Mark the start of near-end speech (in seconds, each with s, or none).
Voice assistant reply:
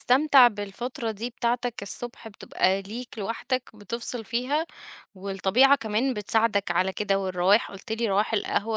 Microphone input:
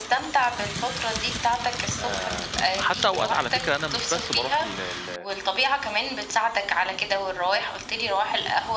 2.0 s